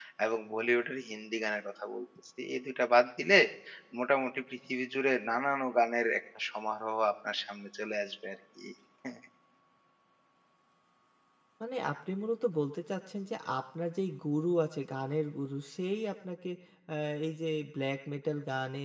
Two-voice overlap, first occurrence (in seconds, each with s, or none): none